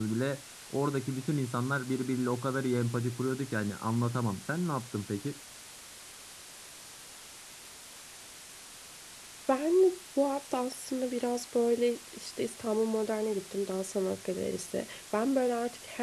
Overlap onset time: none

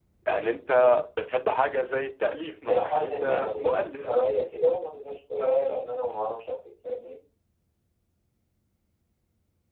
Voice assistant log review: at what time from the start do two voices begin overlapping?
2.7 s

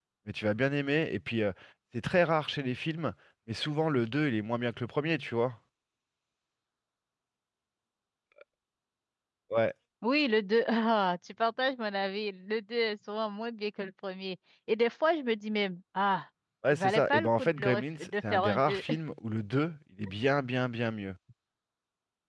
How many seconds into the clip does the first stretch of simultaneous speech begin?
16.7 s

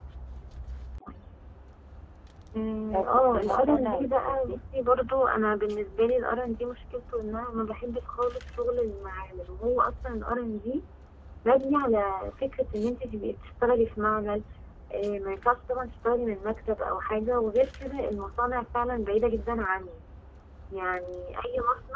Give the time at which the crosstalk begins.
2.9 s

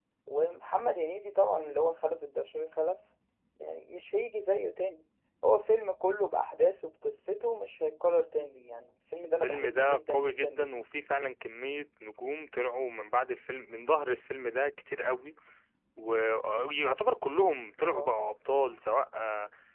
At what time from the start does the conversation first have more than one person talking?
9.4 s

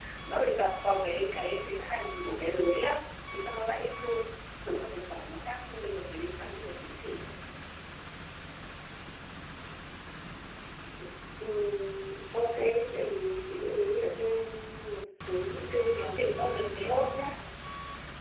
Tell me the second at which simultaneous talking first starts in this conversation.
15.9 s

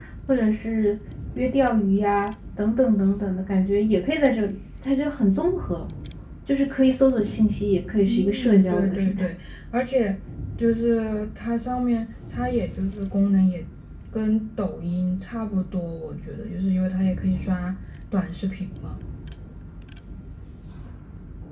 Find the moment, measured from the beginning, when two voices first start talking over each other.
8.1 s

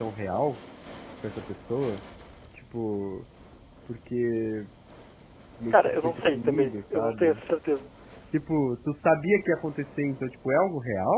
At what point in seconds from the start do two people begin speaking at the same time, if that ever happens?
5.7 s

